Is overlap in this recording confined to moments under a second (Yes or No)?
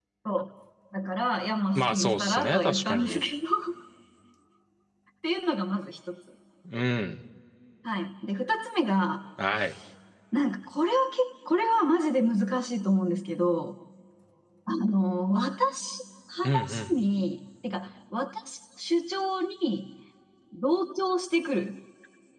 No